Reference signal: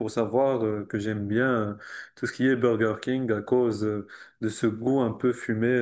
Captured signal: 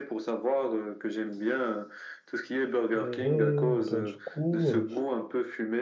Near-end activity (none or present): present